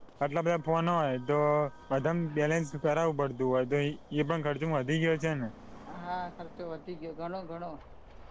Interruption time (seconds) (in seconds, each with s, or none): none